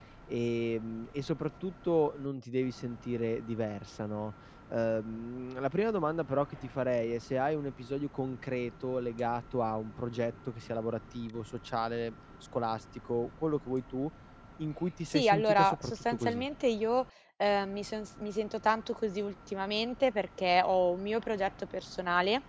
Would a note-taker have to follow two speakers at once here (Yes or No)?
Yes